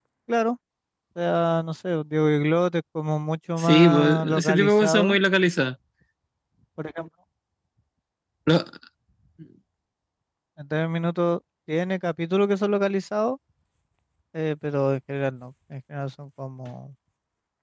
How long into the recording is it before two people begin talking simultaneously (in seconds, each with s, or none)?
3.6 s